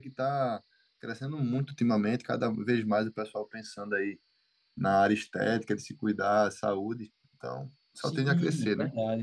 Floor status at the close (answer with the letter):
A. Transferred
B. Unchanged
A